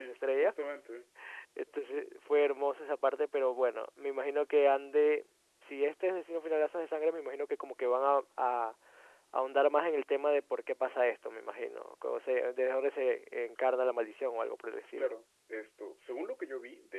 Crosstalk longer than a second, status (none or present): none